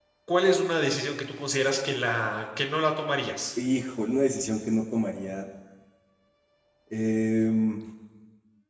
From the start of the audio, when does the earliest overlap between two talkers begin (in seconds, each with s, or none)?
none